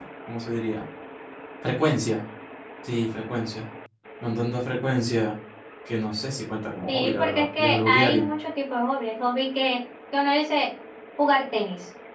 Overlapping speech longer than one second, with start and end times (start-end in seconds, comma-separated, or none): 6.9-8.3